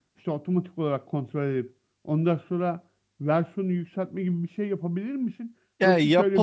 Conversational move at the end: listening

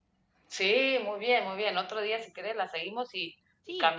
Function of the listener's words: listening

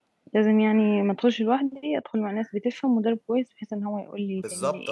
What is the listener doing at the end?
taking over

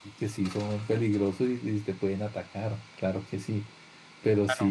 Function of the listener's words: listening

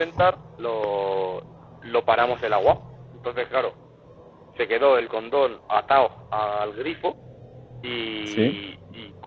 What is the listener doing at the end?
listening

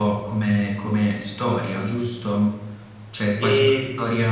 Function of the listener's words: listening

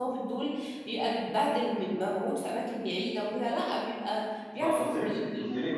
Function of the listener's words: taking over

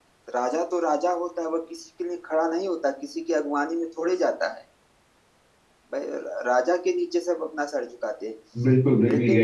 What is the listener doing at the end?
taking over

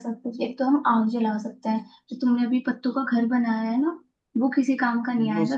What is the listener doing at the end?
listening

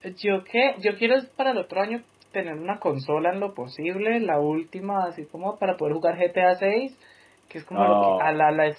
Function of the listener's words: listening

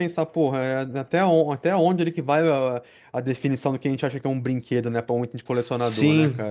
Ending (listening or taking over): taking over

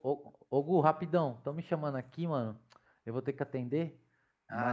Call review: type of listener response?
listening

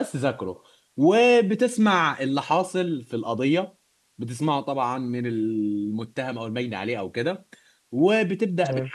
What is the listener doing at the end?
listening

